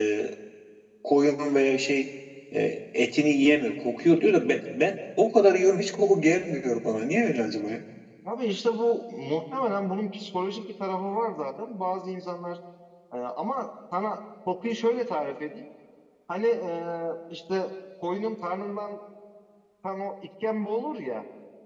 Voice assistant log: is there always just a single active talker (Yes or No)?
Yes